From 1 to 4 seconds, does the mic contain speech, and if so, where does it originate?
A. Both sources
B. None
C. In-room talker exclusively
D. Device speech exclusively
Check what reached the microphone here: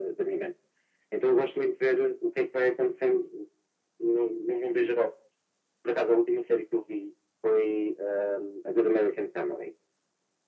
D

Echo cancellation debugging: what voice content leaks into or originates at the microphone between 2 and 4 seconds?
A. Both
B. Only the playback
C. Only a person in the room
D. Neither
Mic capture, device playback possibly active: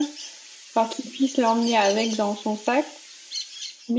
B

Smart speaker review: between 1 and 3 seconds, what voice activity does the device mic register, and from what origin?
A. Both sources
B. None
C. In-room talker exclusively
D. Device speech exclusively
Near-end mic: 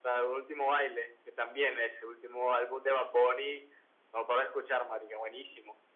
D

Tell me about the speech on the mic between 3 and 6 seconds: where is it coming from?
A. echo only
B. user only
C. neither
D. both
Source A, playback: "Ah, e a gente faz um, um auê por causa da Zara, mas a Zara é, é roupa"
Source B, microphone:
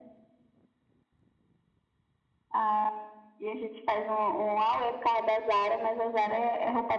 A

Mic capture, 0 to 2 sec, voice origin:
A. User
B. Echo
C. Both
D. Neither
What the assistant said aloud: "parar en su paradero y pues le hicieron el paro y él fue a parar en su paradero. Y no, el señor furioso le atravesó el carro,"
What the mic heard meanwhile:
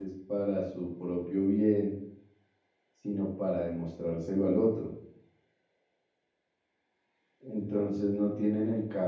A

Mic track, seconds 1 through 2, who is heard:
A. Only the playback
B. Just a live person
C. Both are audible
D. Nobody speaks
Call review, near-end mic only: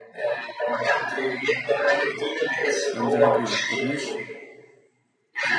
A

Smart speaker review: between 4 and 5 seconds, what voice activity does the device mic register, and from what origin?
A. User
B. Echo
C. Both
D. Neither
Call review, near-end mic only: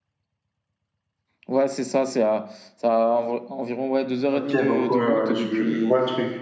C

